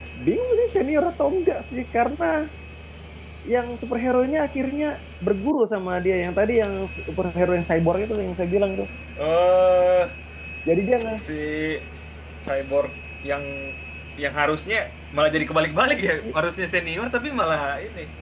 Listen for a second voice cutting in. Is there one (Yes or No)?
No